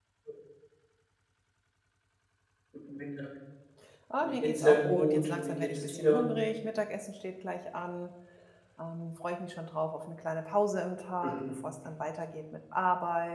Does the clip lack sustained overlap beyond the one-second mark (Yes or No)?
No